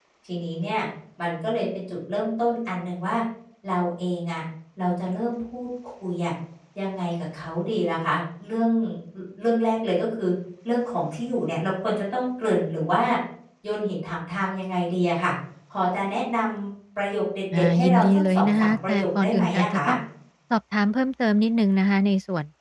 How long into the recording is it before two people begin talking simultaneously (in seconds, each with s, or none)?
17.5 s